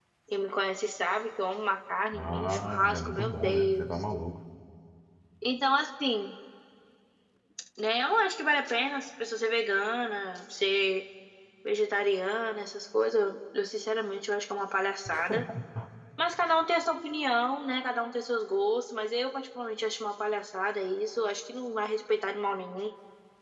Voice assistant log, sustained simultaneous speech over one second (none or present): present